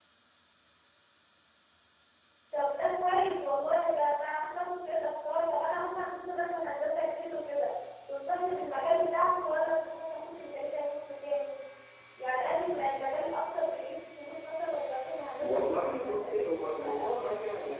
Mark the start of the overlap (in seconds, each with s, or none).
15.4 s